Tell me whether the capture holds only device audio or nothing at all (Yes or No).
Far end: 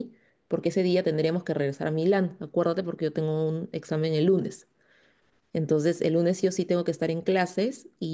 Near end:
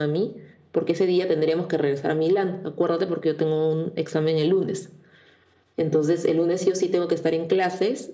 Yes